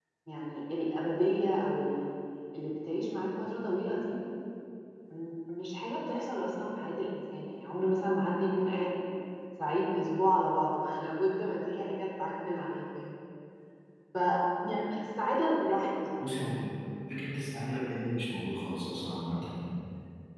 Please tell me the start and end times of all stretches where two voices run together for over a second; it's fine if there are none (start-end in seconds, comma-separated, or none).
none